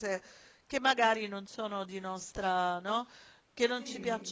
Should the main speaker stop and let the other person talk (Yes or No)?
No